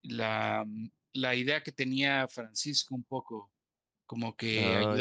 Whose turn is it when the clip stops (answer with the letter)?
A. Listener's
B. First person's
B